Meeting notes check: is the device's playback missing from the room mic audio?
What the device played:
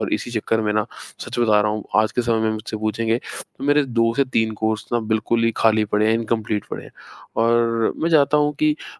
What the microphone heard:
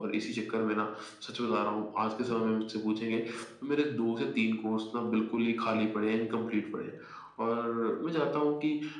No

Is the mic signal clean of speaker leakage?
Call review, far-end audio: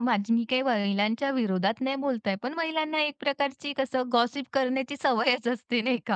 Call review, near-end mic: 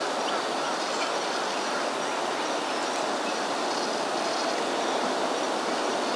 Yes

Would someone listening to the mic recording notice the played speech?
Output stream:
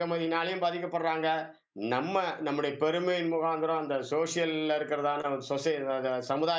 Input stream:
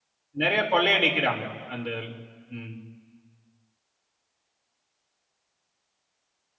No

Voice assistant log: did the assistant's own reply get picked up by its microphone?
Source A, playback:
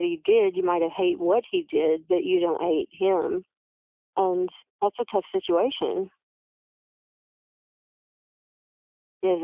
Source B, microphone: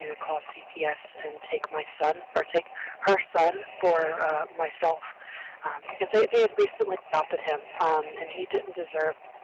No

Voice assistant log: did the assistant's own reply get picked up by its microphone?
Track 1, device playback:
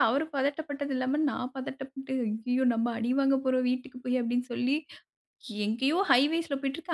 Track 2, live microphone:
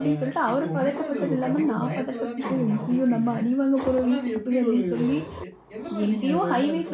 Yes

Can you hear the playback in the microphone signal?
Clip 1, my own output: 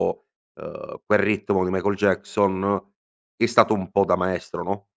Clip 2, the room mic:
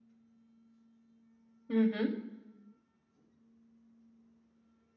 No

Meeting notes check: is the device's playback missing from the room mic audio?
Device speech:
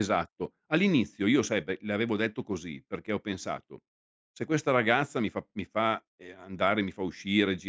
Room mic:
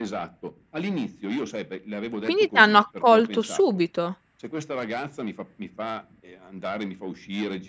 No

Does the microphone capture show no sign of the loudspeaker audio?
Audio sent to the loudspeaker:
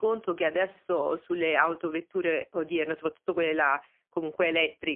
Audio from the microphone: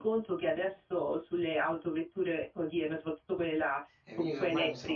No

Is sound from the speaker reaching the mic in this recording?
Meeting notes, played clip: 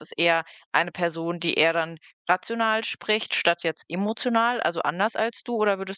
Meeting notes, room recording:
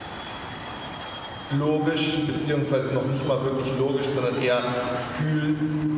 No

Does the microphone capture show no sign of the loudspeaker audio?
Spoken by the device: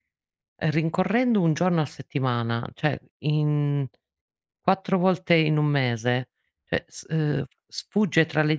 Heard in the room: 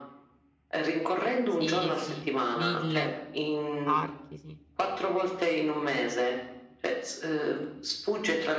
No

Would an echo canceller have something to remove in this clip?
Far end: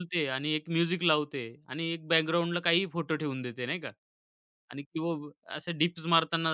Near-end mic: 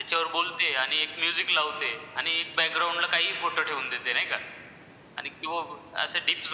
Yes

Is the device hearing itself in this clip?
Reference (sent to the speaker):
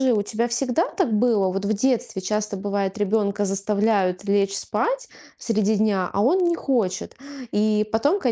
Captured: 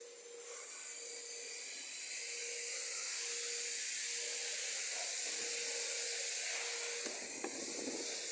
No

